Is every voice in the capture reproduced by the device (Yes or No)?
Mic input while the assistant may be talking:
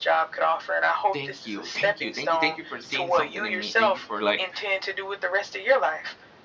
No